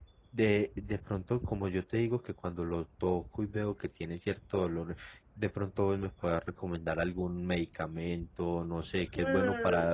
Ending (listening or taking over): taking over